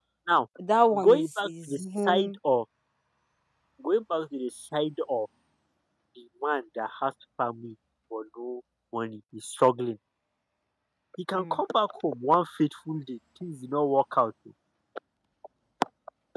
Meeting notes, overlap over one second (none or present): present